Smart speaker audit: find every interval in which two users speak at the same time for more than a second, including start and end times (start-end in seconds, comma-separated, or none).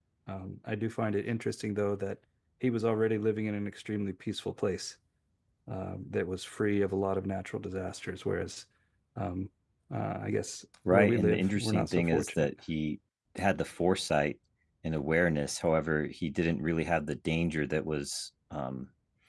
10.9-12.5